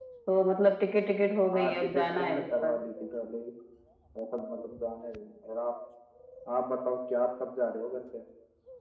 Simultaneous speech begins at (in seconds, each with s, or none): 1.5 s